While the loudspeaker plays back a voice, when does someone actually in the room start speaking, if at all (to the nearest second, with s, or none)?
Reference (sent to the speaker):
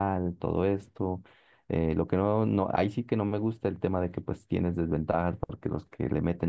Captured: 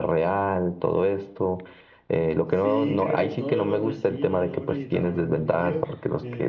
2 s